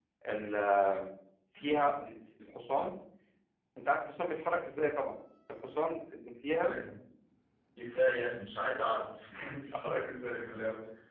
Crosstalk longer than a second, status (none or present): none